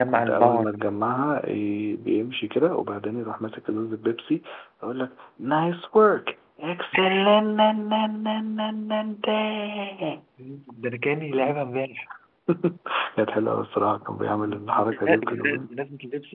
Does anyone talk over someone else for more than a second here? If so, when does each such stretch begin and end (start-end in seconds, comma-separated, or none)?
14.3-15.7